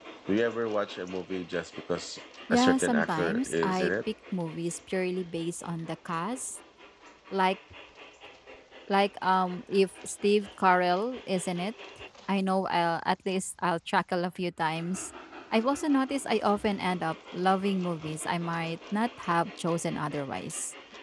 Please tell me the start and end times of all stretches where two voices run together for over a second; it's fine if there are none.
2.5-3.9

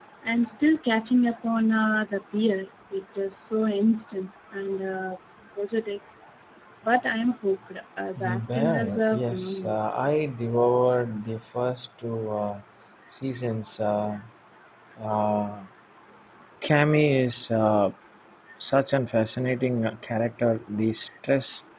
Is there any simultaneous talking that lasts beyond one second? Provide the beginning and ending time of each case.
8.2-9.8

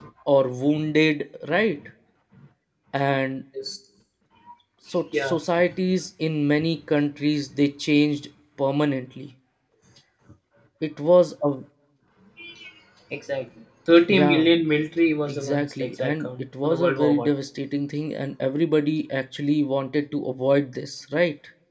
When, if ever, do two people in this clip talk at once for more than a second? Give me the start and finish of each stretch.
15.3-17.3

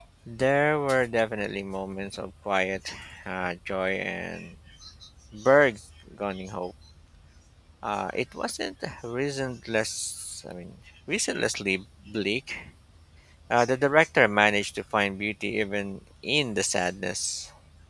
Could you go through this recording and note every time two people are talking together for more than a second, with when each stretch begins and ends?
none

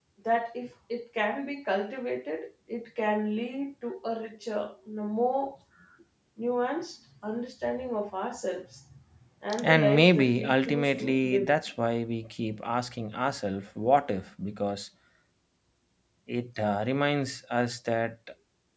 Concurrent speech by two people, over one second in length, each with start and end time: 9.6-11.5

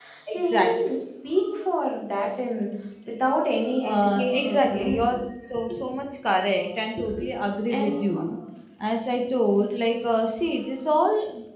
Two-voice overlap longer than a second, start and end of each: 3.8-5.1

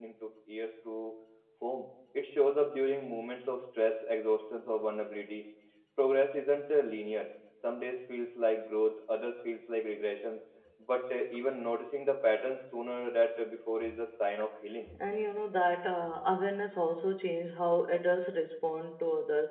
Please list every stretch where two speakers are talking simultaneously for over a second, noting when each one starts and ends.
none

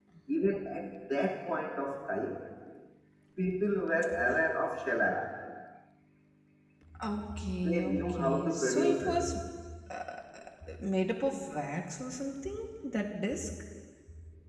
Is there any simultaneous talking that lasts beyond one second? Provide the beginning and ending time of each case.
7.6-9.2

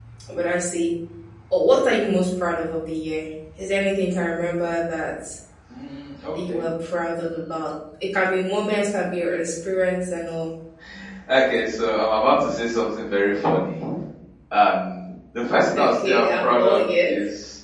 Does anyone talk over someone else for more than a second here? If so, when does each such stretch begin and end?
15.8-17.1

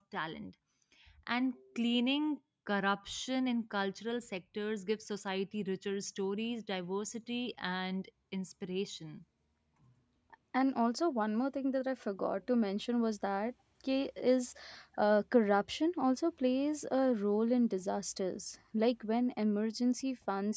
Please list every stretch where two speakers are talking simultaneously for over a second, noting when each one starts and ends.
none

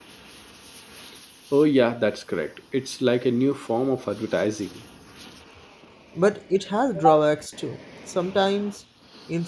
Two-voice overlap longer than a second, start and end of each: none

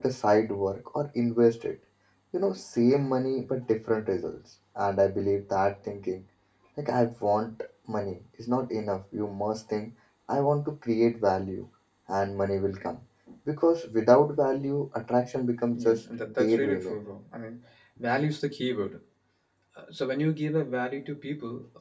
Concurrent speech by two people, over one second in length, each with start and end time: 15.7-16.9

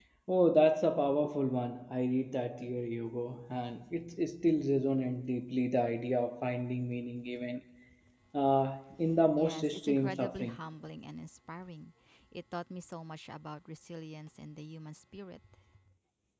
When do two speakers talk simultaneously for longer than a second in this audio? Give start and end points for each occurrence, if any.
9.4-10.6

